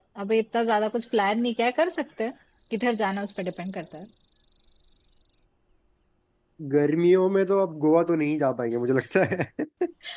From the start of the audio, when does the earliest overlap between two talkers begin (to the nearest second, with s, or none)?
none